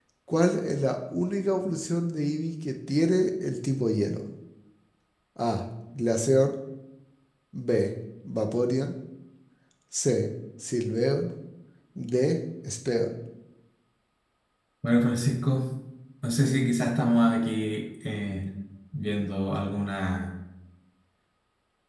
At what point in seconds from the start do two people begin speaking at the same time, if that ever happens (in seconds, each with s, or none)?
none